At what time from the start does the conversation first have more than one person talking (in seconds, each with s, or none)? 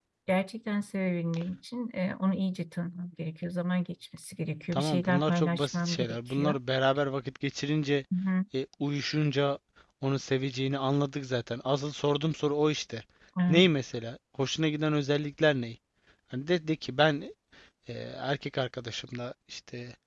4.7 s